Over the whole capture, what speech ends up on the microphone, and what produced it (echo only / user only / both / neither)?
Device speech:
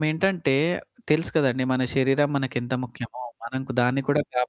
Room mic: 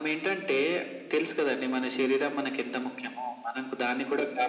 echo only